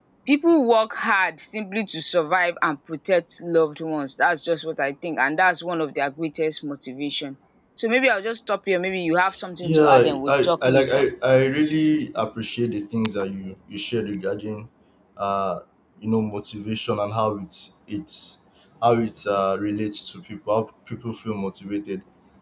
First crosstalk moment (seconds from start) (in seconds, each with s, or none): 9.6 s